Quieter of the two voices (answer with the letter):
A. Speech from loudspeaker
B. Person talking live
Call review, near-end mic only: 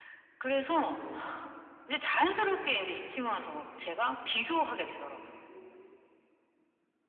B